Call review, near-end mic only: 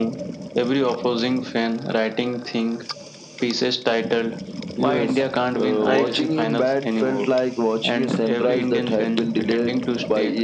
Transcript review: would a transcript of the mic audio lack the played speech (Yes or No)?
No